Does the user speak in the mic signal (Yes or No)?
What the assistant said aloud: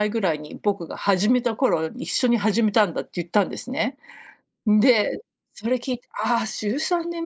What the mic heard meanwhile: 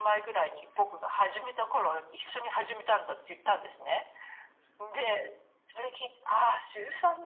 No